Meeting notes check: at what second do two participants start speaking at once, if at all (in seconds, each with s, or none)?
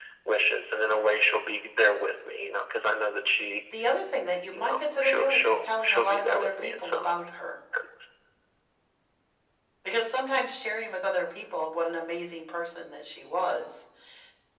4.5 s